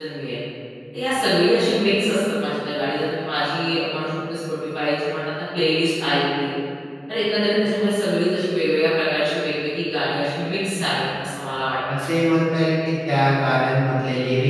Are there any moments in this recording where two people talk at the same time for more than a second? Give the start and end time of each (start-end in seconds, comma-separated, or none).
none